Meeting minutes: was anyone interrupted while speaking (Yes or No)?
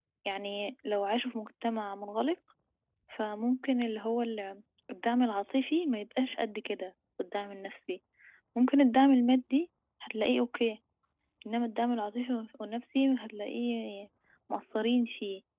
No